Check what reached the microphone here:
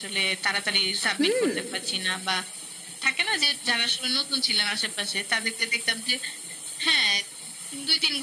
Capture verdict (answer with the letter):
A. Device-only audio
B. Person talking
B